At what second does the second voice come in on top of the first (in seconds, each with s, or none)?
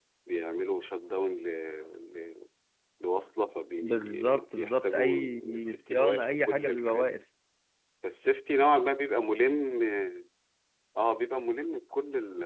3.8 s